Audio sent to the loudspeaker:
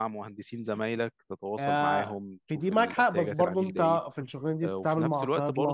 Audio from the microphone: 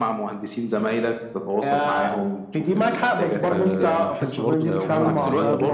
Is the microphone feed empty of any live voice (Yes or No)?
No